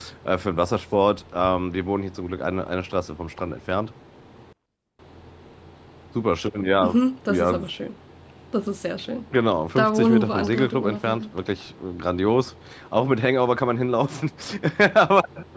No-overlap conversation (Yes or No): No